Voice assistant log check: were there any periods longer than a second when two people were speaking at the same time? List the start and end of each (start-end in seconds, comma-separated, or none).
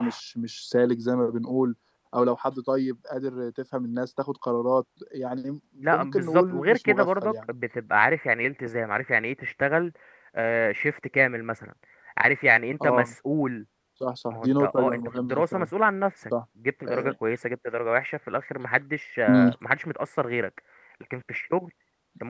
5.9-7.4, 14.3-15.7